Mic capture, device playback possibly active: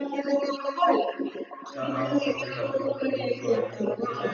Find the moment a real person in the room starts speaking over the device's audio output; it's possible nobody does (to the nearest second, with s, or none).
2 s